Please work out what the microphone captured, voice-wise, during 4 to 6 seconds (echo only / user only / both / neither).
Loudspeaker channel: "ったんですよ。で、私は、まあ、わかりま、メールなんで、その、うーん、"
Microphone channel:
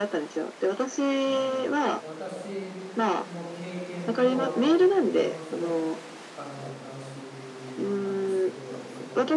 both